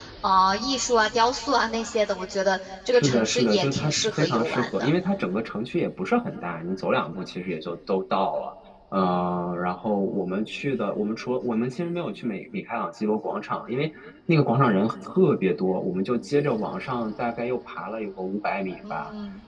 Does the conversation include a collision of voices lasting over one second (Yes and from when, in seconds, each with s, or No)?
Yes, from 2.9 s